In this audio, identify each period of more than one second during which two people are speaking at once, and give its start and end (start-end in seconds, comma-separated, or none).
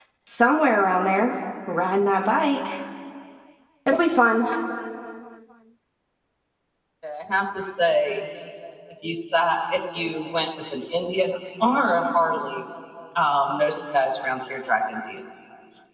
none